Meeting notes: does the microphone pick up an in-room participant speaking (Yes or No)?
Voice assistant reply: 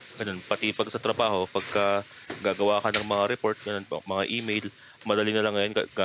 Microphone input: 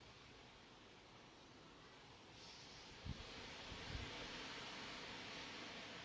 No